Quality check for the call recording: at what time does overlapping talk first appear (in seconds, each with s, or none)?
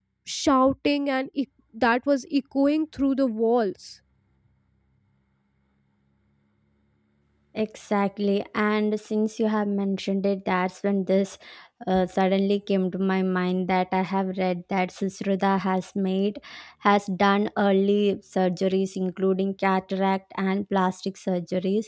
none